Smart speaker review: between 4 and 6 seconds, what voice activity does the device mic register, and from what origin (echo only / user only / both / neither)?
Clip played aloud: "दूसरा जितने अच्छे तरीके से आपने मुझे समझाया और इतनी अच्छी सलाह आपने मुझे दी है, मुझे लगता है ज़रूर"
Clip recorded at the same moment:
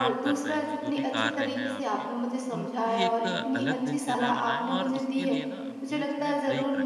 both